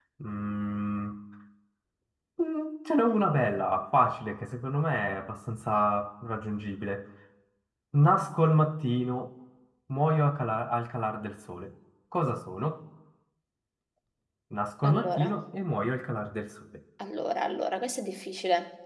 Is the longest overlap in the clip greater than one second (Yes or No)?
No